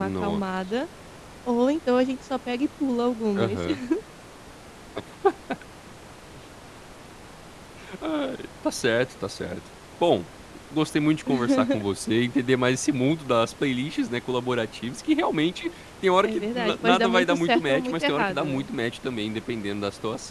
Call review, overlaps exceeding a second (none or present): present